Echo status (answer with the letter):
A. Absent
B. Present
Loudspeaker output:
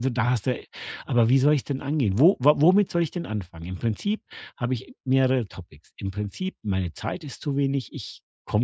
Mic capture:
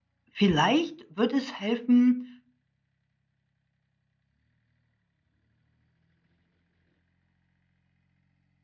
A